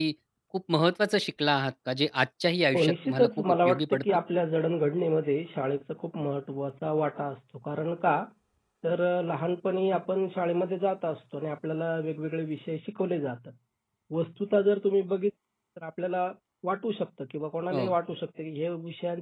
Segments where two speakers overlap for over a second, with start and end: 2.7-4.0

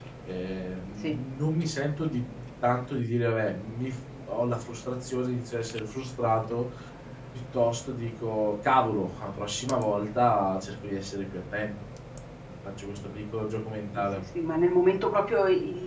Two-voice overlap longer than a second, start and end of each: none

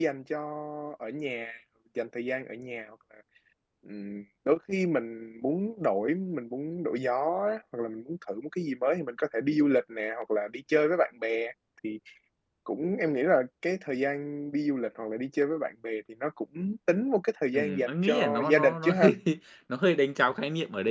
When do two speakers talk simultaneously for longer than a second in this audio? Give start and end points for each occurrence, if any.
17.5-19.1

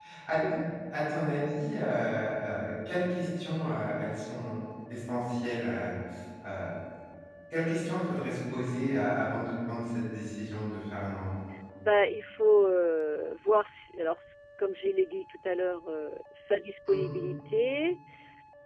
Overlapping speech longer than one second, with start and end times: none

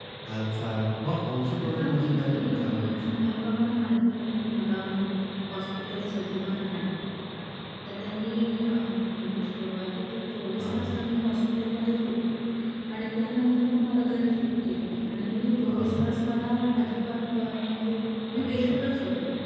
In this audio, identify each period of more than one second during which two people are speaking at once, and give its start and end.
1.8-3.2

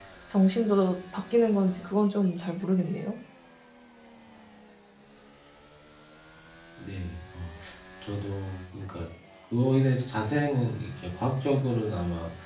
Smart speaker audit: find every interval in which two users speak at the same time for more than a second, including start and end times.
none

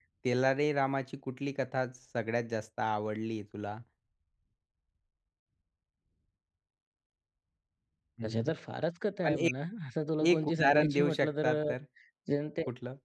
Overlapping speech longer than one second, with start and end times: 10.3-11.5

